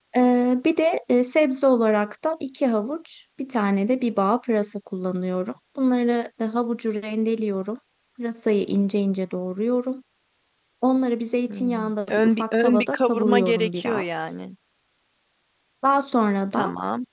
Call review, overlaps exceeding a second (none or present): present